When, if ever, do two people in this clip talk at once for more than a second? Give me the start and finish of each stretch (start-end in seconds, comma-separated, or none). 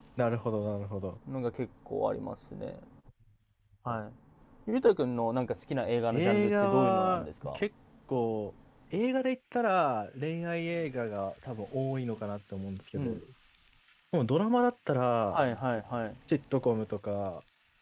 6.1-7.6